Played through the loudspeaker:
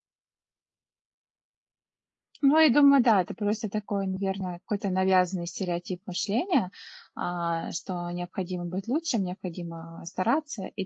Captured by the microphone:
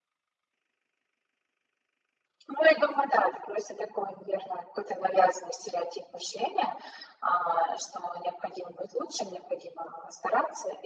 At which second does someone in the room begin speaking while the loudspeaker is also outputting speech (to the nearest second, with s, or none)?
none